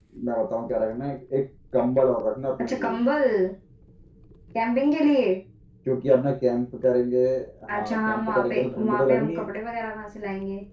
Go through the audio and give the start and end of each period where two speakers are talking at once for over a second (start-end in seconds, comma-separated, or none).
7.7-9.5